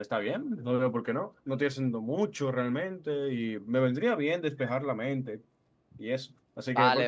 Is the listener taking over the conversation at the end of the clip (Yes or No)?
Yes